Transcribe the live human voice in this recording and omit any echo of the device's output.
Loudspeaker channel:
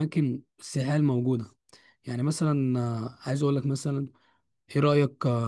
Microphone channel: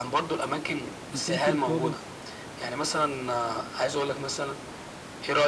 يكون في رقابة

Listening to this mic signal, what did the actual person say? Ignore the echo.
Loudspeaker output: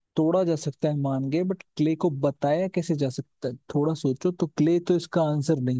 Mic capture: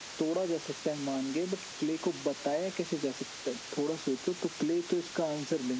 none

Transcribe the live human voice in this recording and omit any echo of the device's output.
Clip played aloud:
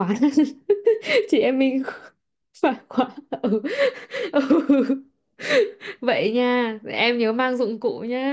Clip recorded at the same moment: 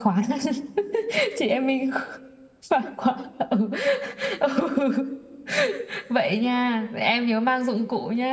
none

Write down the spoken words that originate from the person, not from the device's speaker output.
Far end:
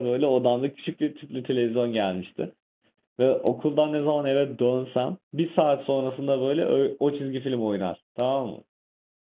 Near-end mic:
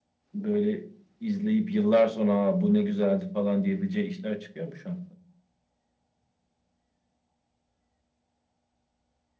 böyle izleyip yıllar sonra "Aa, bu ne güzeldi falan diyebileceği işler çıkıyor mu şu an?

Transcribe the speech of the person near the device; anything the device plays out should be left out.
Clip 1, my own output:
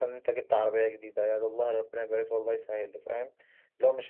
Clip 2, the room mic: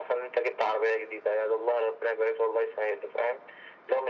none

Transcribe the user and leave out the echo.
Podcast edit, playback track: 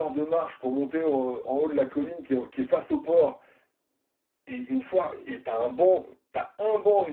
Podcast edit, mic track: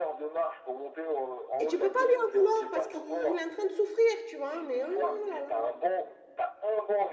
Et tu peux pas lui en vouloir parce qu'il est en train de souffrir, tu vois. Mais oh là là.

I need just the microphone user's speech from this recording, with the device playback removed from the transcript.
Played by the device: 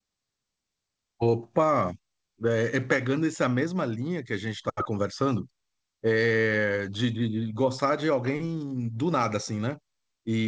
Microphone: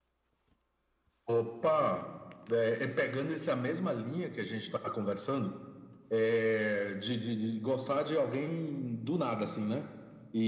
none

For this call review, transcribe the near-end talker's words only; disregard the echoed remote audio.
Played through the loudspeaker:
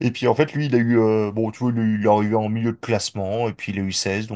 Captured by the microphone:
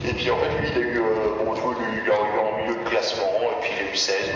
none

